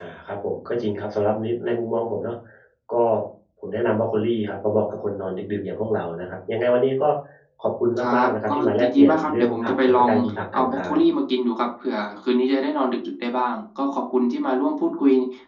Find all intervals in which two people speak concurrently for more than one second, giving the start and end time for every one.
8.0-10.1

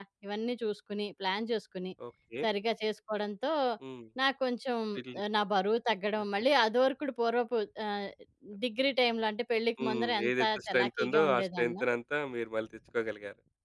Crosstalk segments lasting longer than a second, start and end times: 9.8-11.8

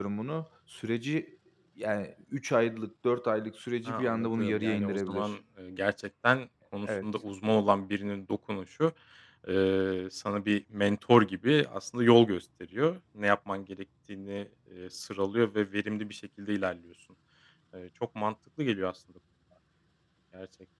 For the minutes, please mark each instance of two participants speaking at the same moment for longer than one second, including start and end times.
3.9-5.3

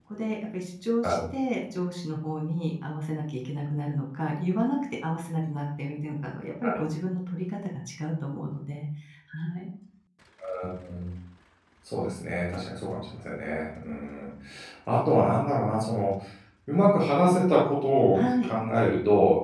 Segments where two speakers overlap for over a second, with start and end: none

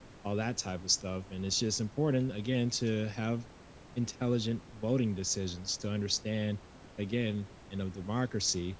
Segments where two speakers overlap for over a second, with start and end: none

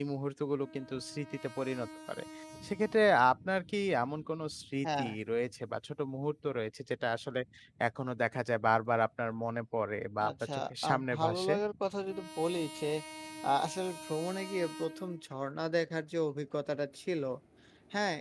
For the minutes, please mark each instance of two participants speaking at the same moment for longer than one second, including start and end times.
10.3-11.5

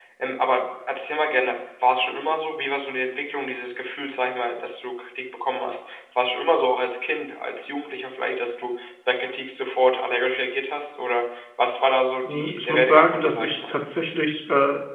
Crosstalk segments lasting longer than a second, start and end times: 12.3-13.7

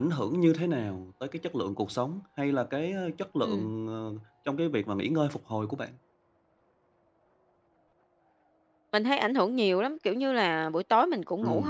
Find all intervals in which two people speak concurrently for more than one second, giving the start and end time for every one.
none

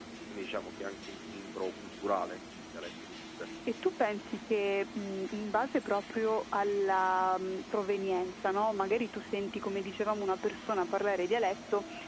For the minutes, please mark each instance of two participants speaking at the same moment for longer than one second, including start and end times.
none

